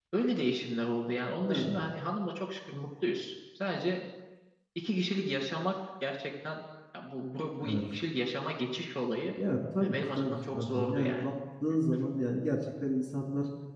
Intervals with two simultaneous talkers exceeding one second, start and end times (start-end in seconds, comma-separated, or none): 9.8-11.2